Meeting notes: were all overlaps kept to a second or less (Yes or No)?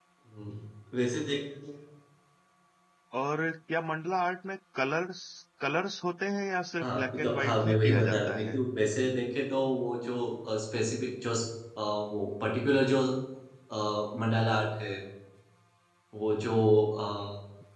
No